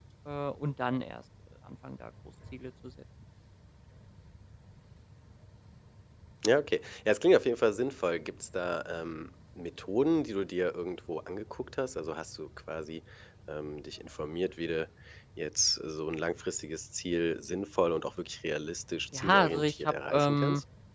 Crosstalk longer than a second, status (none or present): present